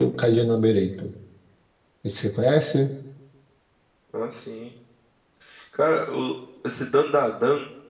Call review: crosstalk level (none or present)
none